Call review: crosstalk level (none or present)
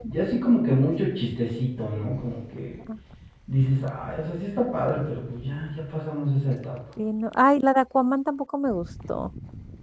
none